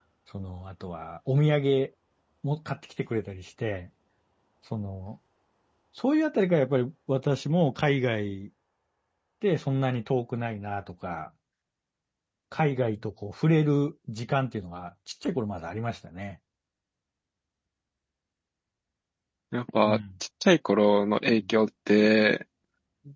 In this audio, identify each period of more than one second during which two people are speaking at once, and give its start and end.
none

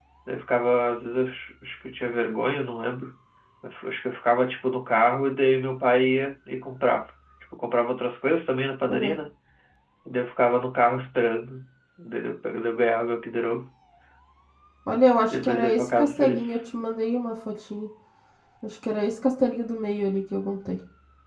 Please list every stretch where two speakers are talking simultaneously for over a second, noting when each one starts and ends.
15.3-16.6

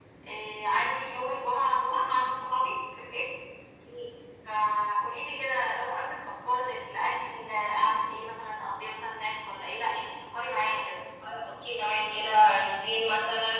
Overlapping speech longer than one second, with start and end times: none

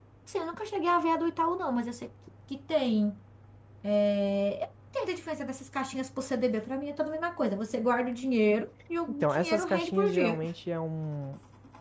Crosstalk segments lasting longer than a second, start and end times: 9.2-10.4

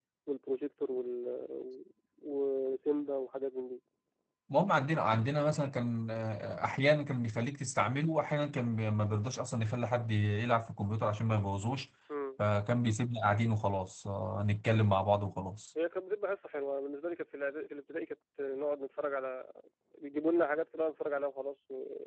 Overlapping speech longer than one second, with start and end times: none

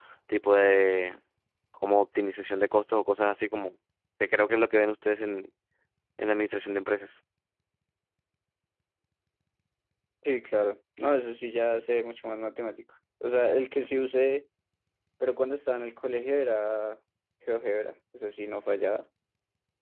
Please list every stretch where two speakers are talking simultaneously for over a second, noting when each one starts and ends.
none

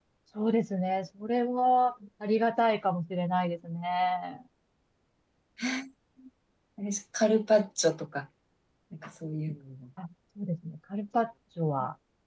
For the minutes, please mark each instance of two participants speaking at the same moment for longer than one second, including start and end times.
none

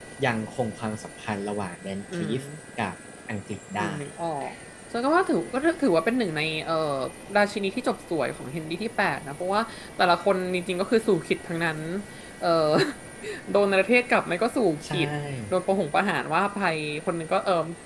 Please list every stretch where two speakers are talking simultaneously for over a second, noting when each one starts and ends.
none

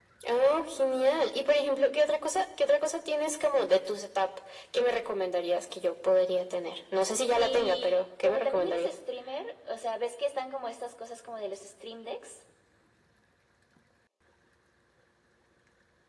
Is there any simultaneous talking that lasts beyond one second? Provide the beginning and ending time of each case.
7.3-8.9

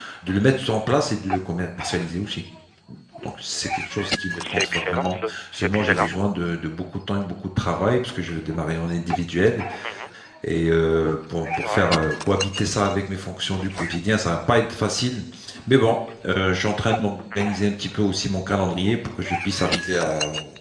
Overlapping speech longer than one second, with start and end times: 4.5-6.1

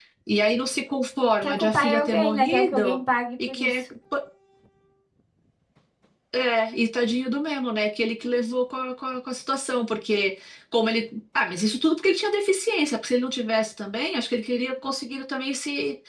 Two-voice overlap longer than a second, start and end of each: 1.4-3.0

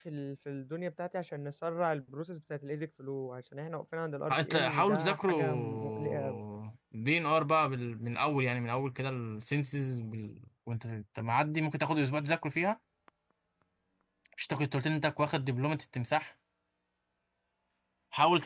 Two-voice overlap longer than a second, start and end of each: 4.3-6.4

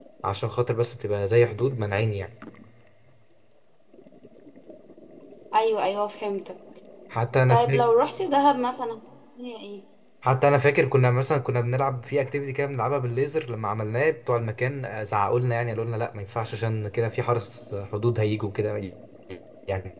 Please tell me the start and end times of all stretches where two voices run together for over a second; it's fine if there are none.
none

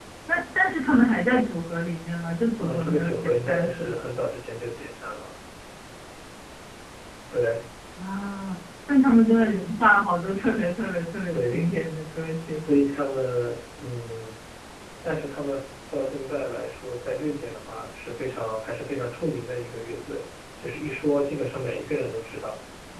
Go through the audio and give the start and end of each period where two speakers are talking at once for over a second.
2.6-4.0

